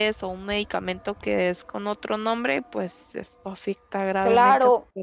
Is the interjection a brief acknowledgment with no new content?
No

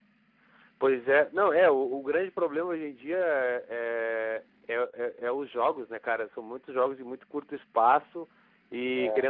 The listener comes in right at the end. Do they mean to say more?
No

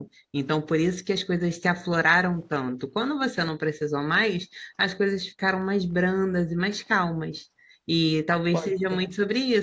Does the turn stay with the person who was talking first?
Yes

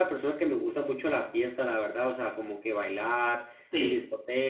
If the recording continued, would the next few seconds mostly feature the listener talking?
No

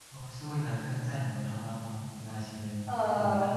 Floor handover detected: Yes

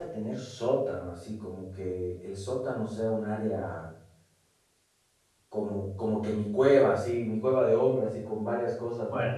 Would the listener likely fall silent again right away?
Yes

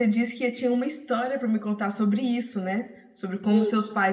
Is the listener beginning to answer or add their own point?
No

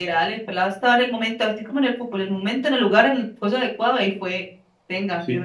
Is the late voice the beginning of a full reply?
Yes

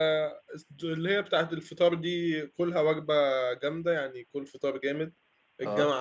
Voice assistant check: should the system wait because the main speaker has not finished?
Yes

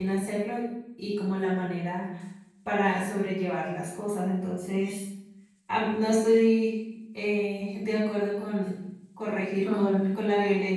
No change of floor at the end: No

